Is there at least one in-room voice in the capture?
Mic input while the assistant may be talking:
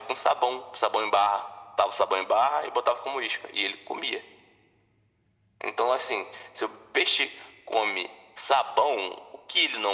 No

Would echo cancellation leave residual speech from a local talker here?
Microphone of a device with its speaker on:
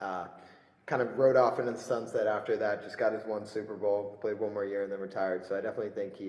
Yes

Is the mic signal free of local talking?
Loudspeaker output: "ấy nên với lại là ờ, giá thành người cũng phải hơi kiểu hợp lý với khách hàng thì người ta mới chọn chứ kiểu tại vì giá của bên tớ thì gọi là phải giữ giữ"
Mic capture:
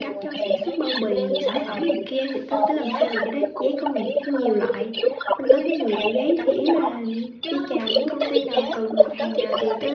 No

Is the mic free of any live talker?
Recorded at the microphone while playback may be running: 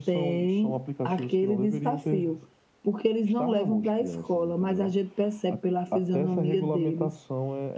Yes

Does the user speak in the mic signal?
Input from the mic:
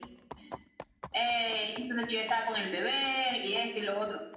No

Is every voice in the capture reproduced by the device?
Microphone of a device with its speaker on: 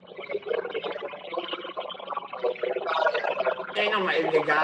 No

